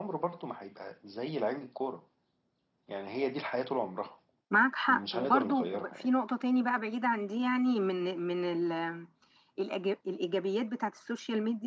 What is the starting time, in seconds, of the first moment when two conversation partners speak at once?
5 s

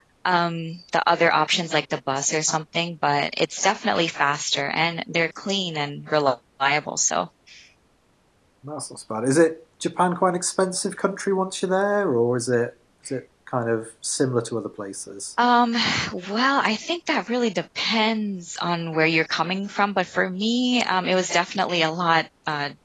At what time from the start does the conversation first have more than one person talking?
none

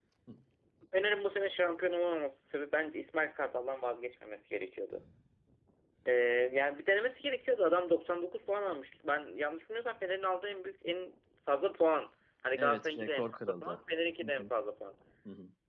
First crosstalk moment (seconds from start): 13 s

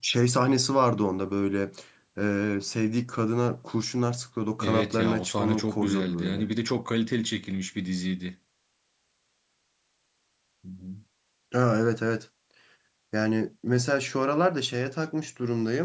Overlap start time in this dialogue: 5 s

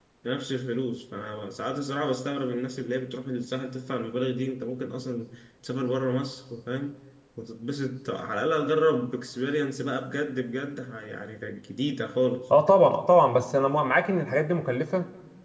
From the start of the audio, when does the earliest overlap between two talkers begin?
none

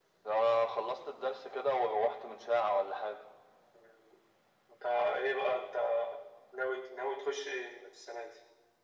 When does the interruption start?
none

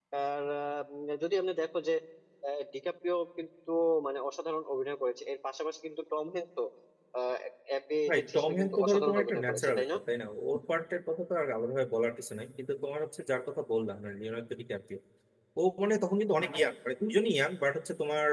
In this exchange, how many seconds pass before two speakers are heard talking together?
8 s

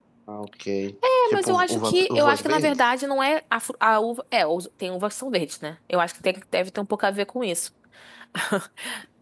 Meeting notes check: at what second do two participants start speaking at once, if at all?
1 s

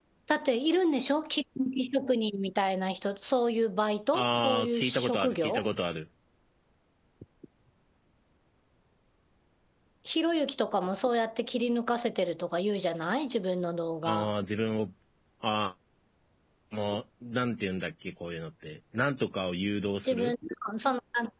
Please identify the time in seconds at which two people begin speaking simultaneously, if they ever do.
4 s

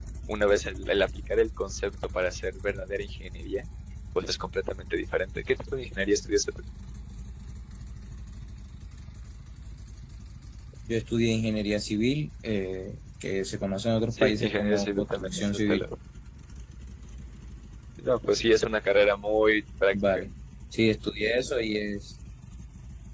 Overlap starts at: 14 s

